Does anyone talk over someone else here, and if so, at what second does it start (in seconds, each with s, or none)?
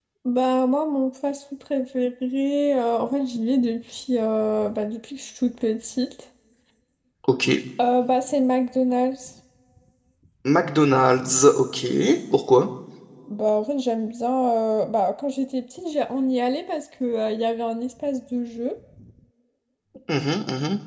none